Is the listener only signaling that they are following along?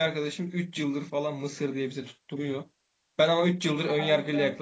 Yes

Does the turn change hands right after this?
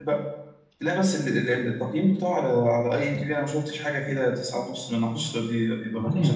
Yes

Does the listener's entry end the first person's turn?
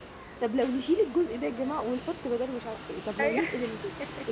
No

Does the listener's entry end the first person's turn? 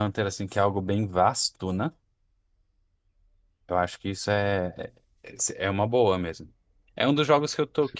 No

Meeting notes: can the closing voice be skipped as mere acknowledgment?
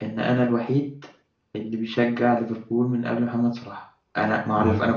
Yes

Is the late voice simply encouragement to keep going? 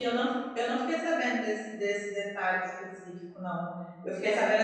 Yes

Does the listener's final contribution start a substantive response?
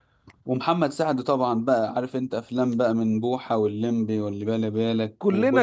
Yes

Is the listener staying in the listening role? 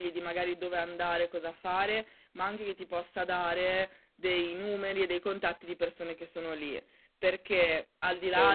Yes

